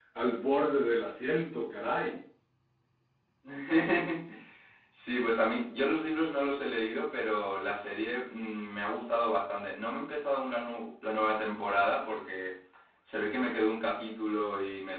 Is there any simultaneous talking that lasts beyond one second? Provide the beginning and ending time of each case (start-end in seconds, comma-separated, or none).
none